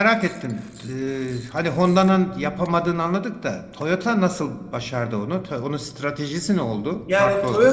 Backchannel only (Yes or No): No